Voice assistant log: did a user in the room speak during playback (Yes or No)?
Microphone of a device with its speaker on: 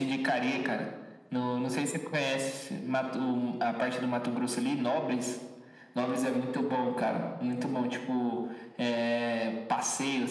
No